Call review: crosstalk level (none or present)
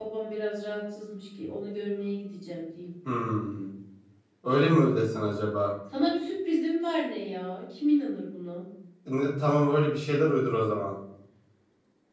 none